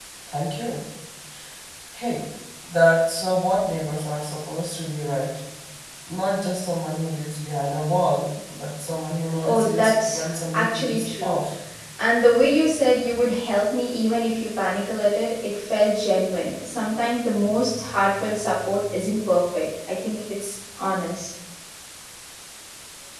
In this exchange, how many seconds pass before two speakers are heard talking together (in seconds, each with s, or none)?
9.4 s